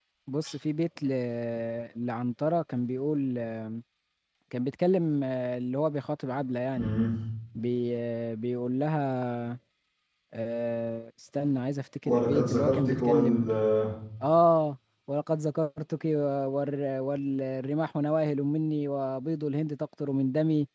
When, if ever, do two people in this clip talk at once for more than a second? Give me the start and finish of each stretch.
12.0-13.5

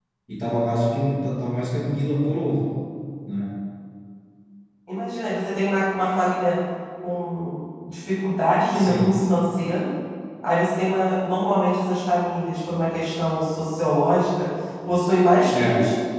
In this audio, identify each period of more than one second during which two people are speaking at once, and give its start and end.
none

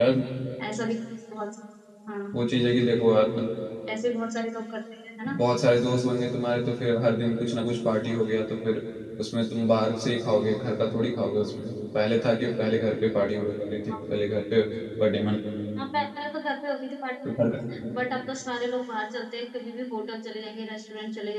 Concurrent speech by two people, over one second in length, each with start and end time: none

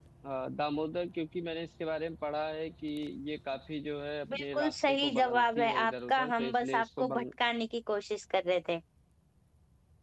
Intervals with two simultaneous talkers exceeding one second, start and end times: 4.3-7.2

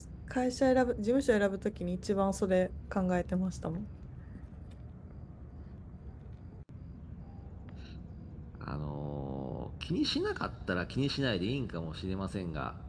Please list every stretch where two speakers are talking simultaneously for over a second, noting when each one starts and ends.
none

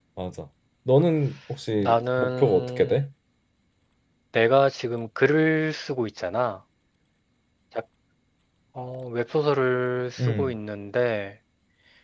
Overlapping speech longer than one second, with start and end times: 1.8-3.0

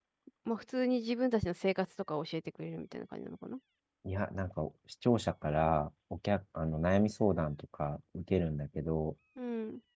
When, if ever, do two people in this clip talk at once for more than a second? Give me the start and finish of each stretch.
none

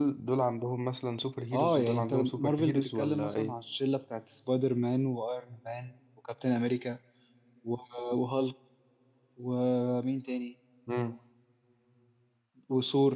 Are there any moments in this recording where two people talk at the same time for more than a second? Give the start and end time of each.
1.5-3.5

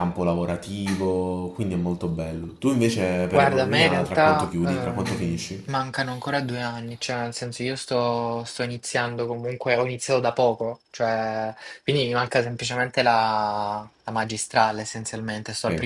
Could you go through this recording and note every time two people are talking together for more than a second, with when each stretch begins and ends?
3.3-5.7

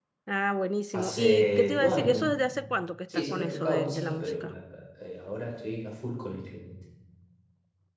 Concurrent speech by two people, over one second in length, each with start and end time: 0.9-2.2, 3.1-4.5

